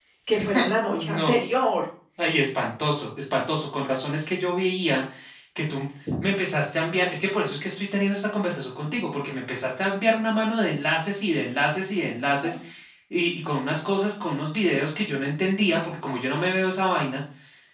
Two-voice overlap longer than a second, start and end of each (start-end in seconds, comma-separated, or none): none